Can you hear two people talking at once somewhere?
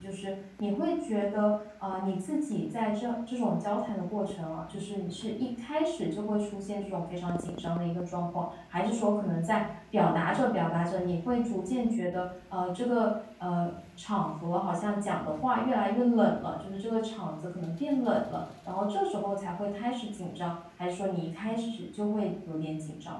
No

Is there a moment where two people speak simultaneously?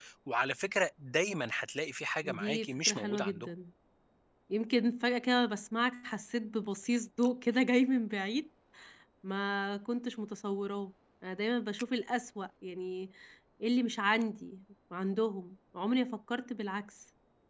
Yes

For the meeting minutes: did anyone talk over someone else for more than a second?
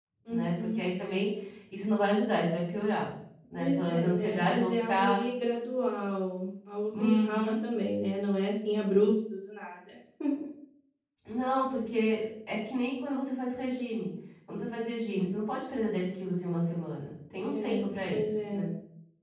Yes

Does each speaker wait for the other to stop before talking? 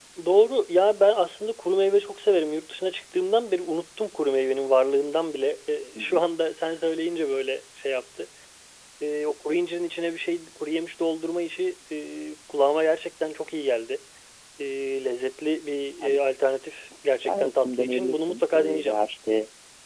No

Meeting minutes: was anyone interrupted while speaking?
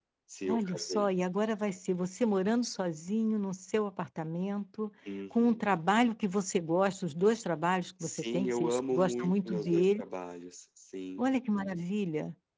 Yes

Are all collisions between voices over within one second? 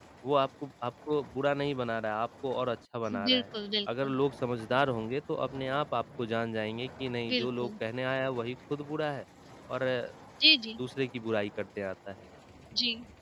Yes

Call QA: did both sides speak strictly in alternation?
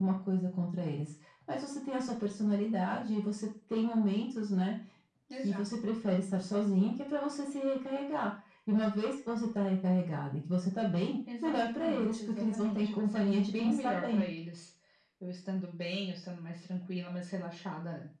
No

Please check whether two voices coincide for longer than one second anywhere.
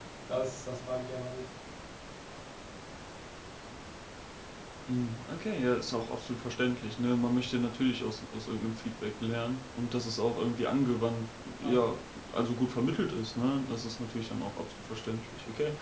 No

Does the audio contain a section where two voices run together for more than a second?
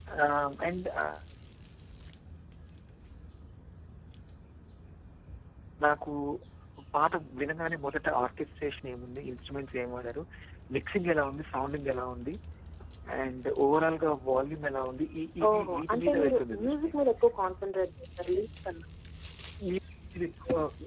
Yes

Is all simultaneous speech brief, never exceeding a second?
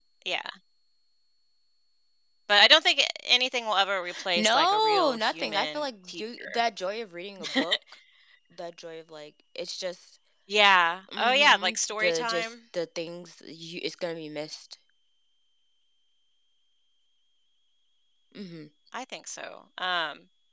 No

